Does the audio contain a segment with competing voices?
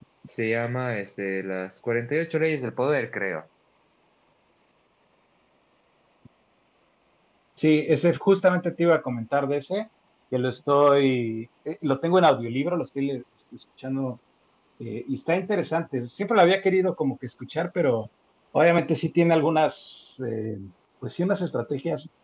No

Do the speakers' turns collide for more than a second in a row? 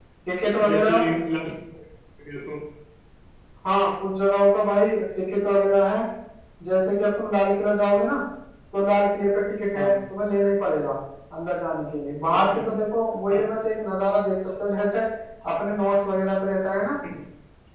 No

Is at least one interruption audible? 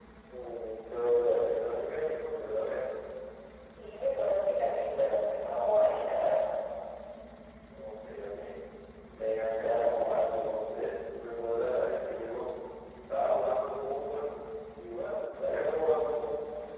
No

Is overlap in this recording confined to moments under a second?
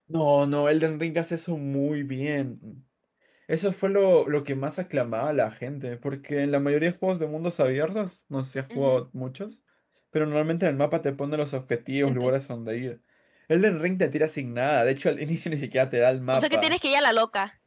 Yes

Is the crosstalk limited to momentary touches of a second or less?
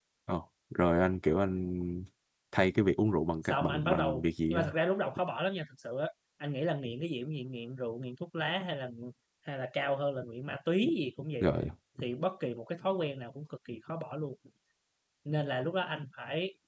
No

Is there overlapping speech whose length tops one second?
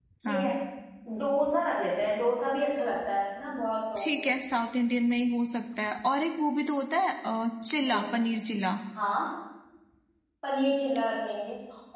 No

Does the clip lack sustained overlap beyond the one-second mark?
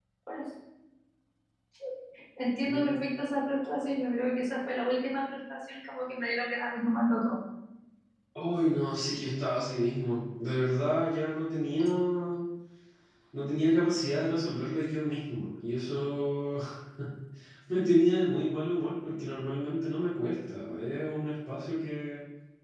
Yes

